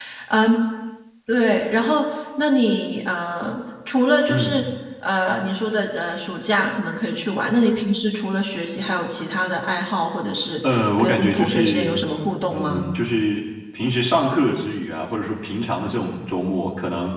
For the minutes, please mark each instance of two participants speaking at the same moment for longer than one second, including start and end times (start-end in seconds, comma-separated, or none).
10.7-11.9